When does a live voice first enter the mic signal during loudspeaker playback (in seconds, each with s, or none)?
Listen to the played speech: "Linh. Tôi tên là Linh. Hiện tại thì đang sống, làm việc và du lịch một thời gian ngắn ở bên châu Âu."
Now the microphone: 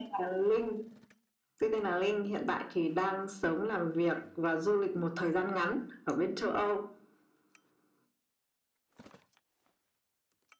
none